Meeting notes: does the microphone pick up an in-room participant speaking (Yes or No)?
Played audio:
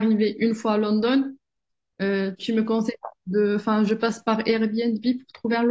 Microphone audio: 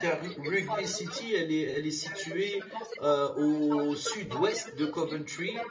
Yes